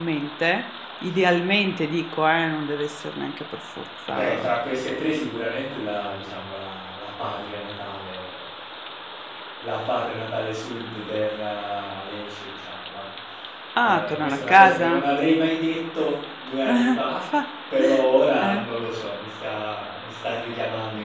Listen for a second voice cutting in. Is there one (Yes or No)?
Yes